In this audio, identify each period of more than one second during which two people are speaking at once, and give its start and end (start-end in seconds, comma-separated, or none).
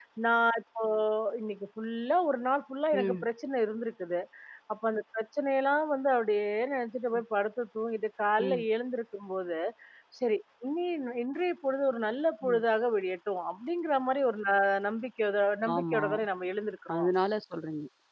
none